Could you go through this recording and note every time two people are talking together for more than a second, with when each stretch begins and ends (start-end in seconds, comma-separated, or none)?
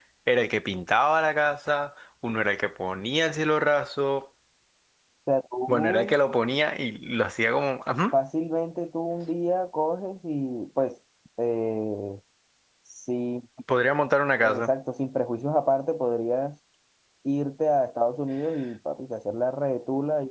none